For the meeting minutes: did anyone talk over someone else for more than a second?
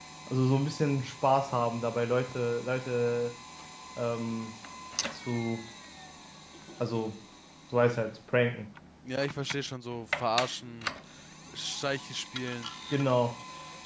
No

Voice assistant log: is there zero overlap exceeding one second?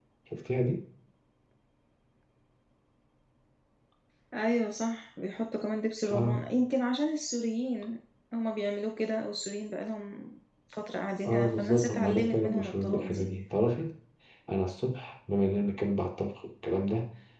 No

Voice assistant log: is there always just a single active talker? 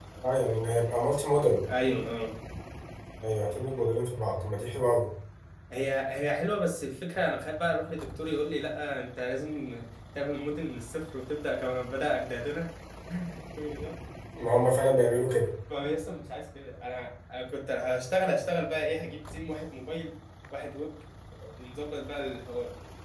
Yes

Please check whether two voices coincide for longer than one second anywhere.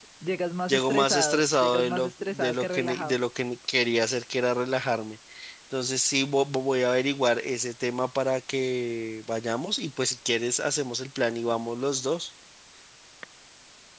Yes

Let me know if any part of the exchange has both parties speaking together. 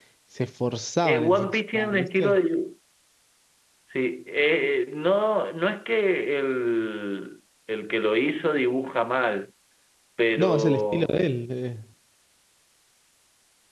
Yes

